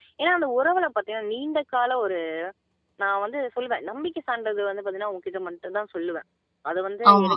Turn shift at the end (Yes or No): No